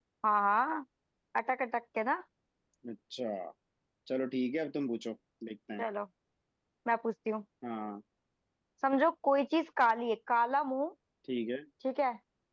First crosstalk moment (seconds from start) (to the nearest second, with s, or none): none